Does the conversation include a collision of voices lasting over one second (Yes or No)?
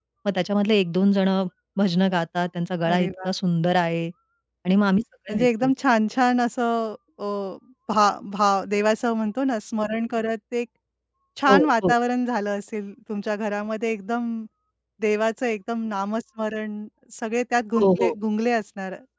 No